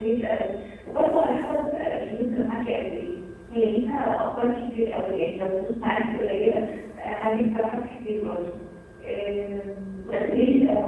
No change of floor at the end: Yes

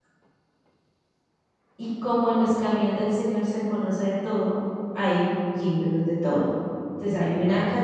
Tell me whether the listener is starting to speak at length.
No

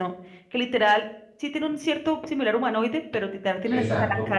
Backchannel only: Yes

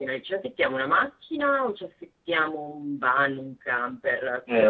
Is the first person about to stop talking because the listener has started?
Yes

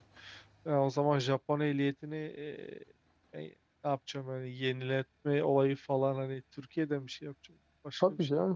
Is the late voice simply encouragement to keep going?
No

